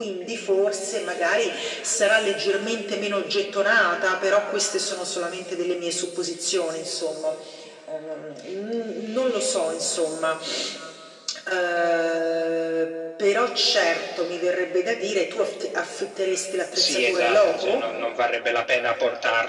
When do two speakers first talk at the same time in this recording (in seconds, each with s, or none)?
16.8 s